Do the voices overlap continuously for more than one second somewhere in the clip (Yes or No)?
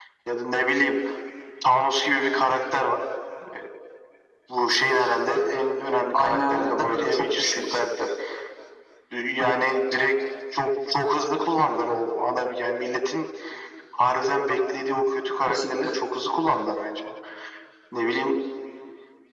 Yes